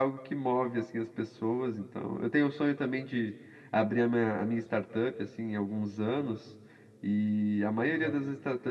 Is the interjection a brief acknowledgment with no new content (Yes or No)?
Yes